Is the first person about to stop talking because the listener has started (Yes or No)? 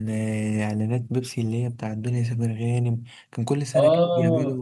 Yes